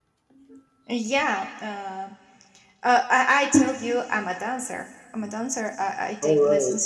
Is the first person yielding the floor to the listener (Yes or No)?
No